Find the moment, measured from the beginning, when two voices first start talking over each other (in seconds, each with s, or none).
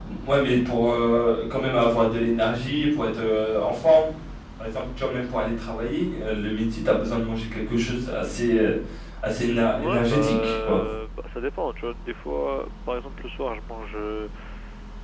9.4 s